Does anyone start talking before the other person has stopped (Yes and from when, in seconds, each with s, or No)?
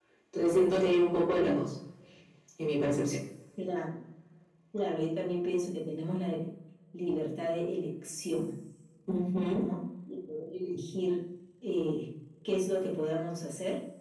No